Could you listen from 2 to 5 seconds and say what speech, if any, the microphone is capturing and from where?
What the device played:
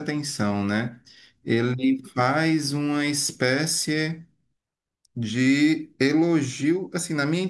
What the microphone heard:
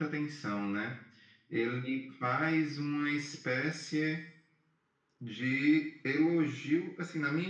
echo only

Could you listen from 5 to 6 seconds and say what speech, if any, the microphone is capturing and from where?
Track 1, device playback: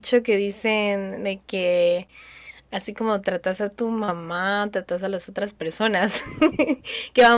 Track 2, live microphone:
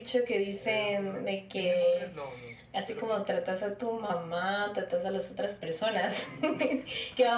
echo only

